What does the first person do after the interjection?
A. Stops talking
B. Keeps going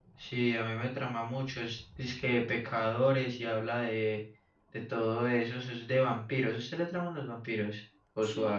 A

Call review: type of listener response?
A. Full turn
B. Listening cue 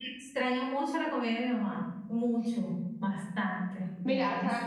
A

